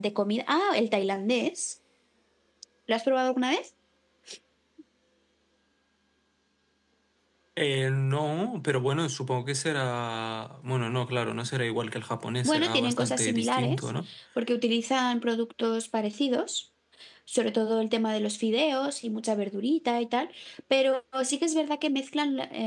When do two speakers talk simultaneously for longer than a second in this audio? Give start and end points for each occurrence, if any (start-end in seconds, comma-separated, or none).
12.4-13.9